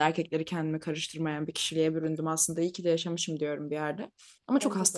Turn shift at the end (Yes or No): No